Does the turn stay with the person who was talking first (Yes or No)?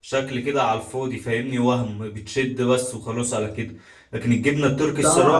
No